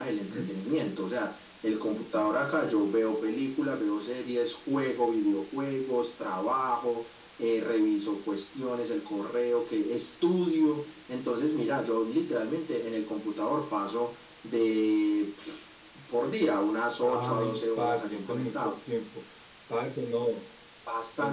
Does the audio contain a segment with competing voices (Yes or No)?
Yes